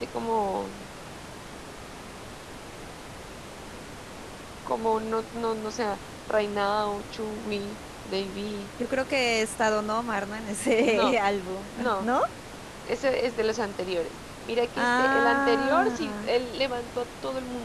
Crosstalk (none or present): present